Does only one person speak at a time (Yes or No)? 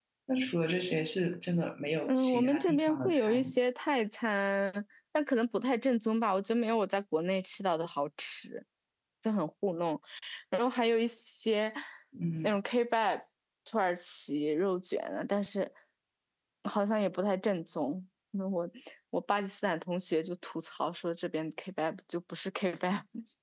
No